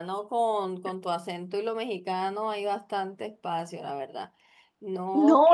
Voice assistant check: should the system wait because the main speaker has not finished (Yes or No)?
No